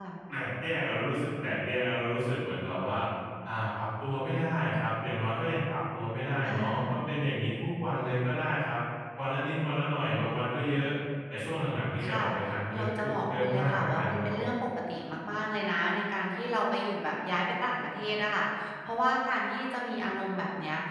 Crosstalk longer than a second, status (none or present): present